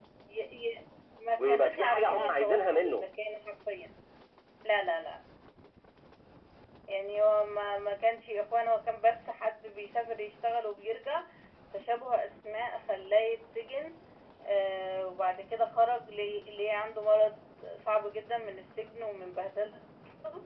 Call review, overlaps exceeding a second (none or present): present